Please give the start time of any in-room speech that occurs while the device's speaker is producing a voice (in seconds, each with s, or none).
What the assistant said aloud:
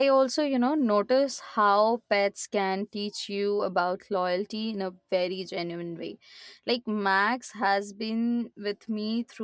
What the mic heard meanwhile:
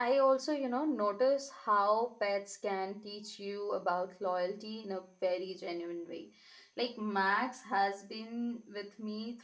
none